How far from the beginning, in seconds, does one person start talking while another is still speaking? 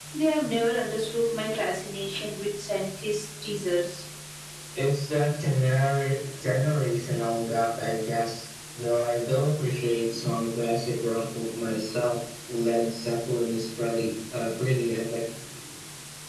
none

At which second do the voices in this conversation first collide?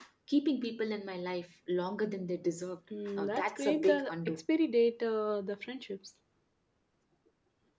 3.2 s

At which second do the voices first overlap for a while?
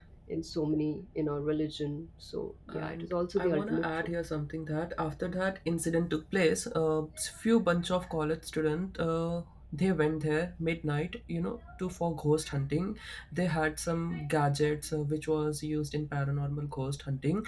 2.7 s

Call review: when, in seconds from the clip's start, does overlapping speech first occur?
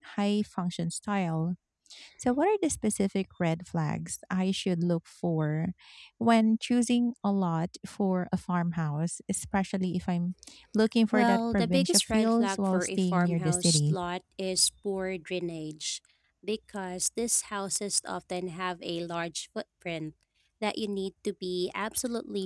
11.1 s

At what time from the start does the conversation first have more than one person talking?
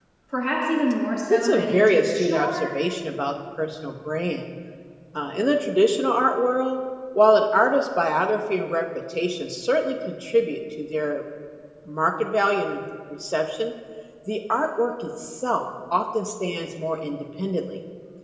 1.3 s

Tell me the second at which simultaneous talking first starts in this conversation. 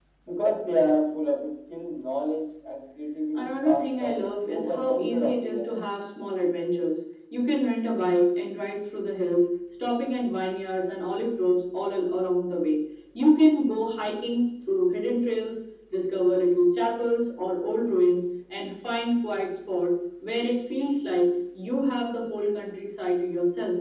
3.4 s

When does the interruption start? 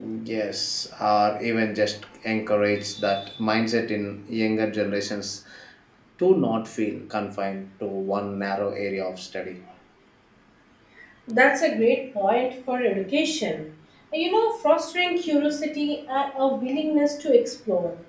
none

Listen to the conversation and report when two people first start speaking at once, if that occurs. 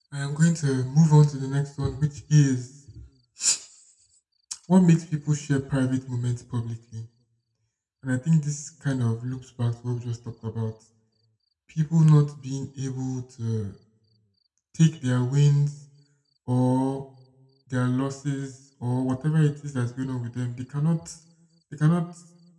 none

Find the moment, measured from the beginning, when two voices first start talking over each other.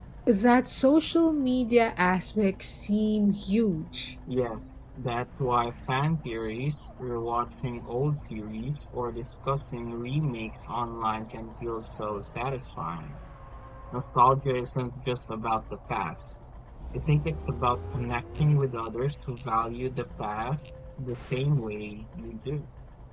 none

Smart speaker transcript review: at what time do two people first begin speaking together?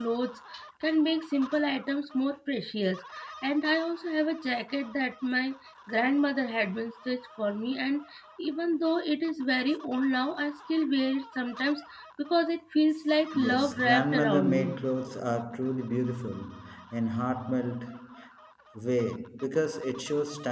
13.3 s

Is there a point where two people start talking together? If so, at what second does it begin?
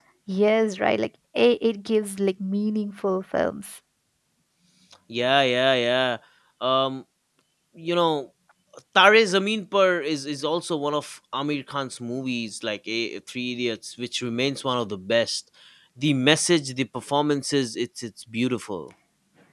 none

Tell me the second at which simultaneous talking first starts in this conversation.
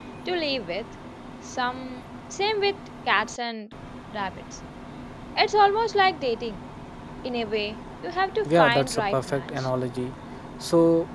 8.4 s

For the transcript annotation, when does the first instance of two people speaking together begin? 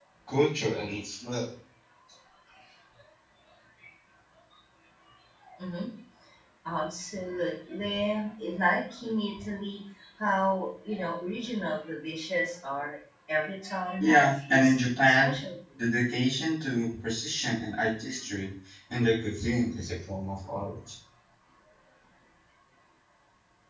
14.0 s

